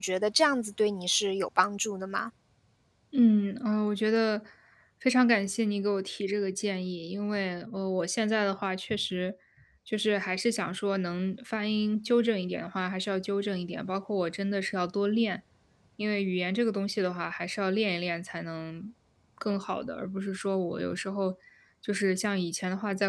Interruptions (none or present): none